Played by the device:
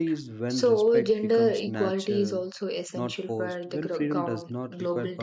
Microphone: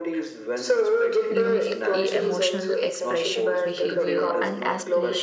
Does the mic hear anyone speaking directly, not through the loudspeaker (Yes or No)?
Yes